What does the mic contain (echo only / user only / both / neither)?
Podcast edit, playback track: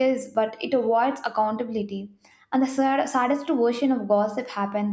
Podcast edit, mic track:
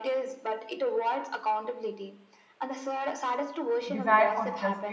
both